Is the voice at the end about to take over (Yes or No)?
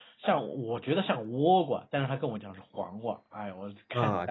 Yes